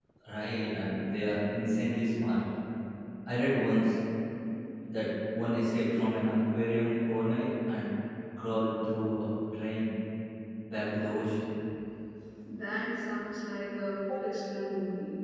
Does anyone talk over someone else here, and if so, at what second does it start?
none

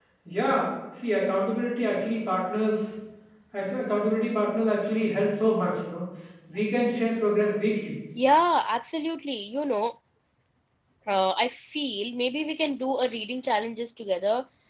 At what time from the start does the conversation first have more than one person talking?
none

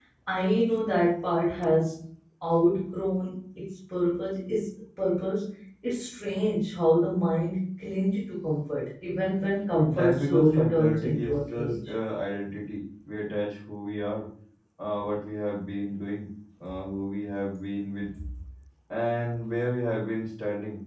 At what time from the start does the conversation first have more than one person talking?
10 s

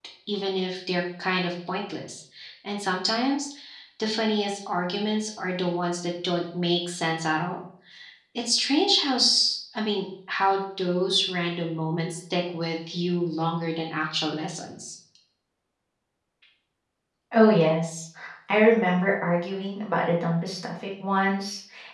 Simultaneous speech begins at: none

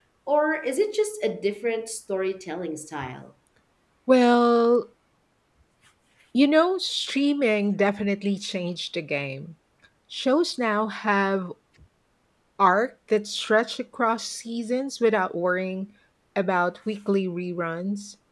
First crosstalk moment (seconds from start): none

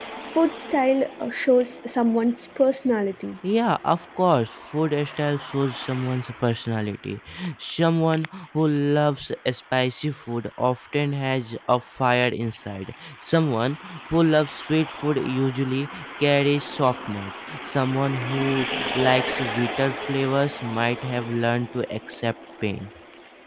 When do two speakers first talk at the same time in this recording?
none

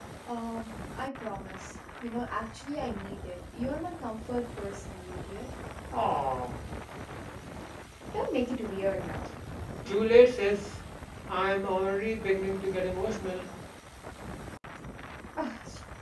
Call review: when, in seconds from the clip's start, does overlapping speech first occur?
none

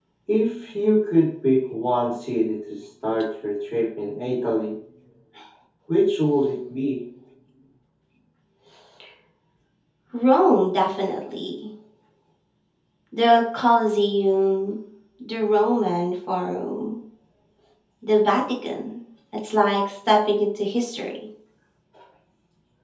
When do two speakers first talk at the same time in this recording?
none

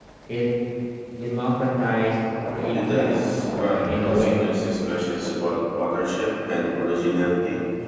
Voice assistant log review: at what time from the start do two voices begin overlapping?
3 s

